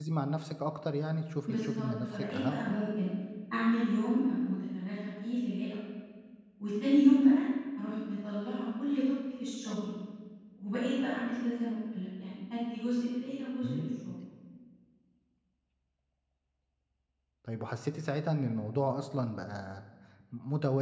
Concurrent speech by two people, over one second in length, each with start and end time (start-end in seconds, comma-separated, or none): 1.5-2.8